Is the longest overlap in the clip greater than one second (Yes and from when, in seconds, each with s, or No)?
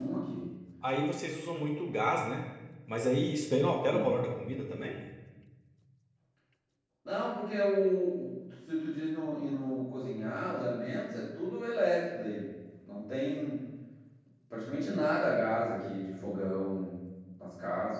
No